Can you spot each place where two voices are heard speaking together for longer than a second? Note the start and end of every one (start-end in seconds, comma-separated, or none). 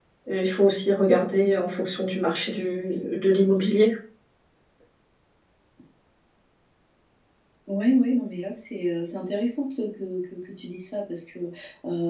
none